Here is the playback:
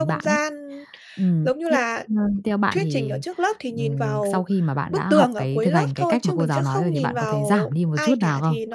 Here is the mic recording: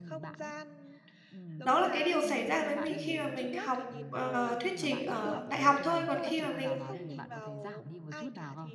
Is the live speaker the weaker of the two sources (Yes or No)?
No